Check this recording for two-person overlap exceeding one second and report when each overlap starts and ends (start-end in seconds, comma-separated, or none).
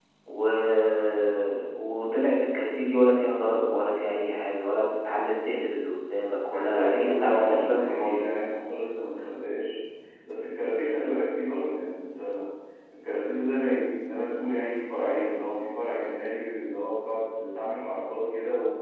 6.5-8.3